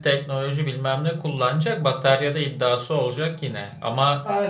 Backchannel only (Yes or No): No